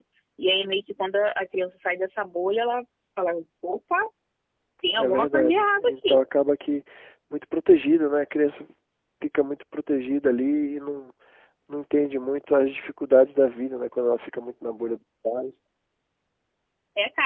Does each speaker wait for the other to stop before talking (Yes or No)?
No